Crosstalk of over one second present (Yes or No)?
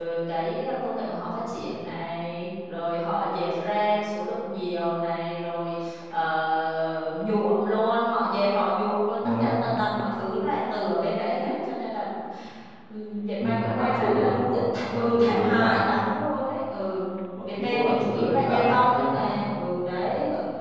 Yes